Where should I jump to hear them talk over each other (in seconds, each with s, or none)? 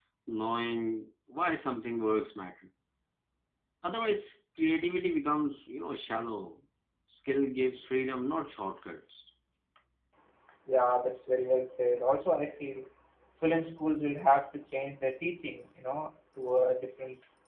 none